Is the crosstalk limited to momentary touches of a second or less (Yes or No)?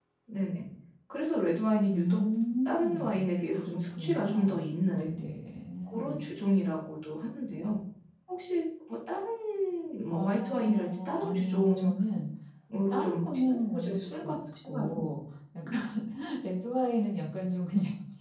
No